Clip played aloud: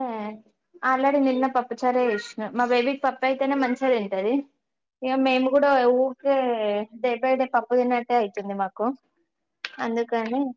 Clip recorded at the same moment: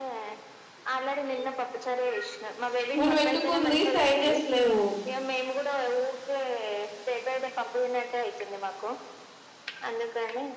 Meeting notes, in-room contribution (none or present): present